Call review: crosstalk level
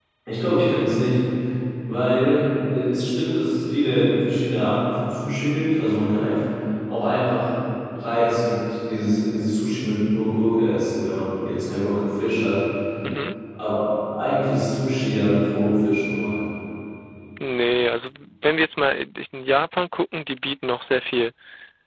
none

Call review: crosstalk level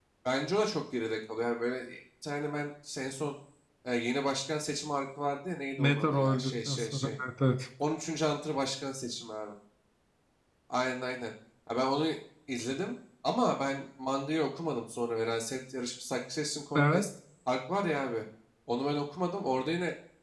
present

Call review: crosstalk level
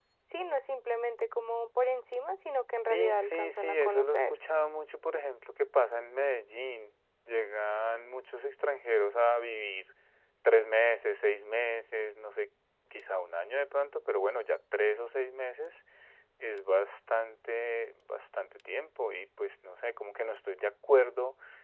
present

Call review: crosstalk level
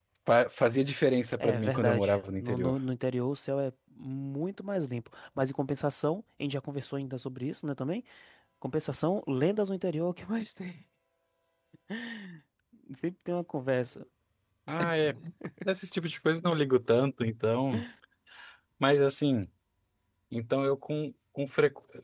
present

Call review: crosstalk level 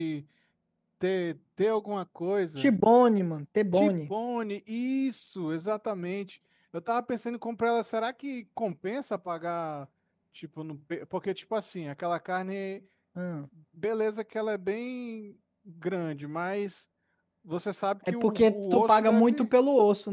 present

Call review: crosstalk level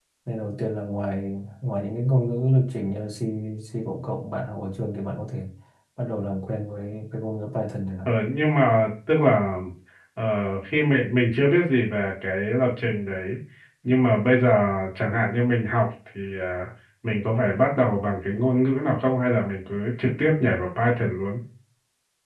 none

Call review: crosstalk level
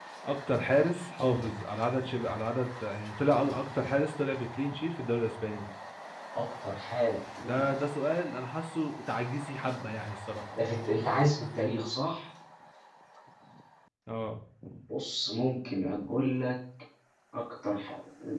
none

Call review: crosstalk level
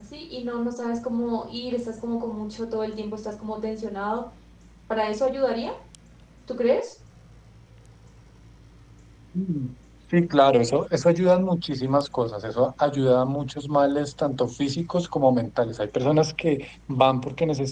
none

